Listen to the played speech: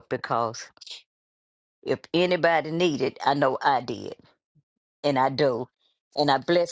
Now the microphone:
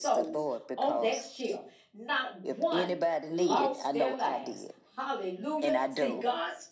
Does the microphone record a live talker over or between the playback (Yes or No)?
Yes